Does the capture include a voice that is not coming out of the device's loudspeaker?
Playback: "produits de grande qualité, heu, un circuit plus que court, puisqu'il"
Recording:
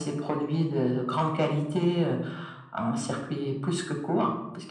No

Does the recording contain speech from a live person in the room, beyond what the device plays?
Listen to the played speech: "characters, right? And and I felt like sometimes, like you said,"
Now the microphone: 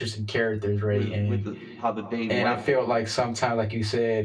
Yes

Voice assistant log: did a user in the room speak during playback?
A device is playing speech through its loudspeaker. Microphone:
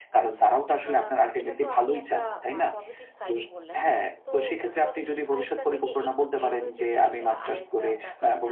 Yes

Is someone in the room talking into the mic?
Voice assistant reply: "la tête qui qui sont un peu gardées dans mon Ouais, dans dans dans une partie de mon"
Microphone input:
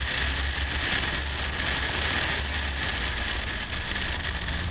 No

